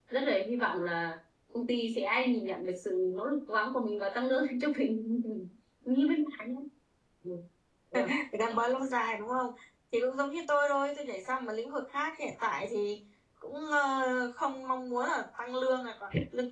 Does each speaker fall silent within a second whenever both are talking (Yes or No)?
Yes